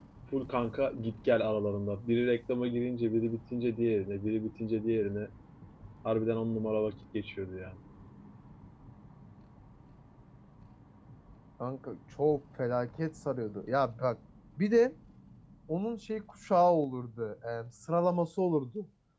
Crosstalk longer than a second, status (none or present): none